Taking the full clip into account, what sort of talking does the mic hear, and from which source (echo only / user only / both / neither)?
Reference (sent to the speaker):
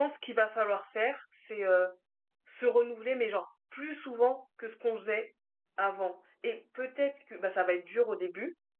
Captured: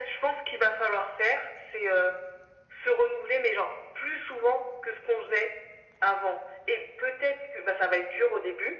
echo only